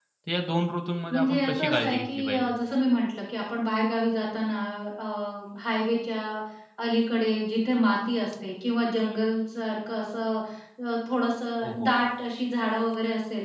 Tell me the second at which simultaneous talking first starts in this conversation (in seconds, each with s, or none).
1.1 s